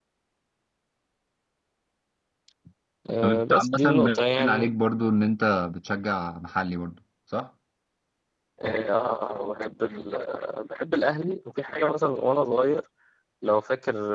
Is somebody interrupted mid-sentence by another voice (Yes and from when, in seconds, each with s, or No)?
Yes, from 3.2 s